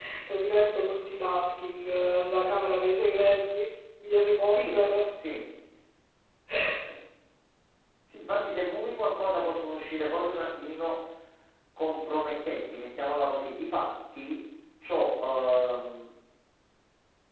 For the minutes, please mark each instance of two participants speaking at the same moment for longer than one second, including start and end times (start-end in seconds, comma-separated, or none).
none